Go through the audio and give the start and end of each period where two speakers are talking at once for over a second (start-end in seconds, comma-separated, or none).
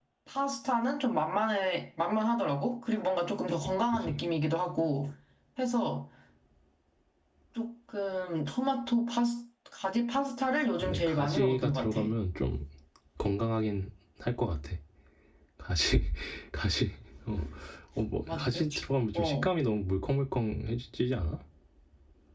10.8-12.0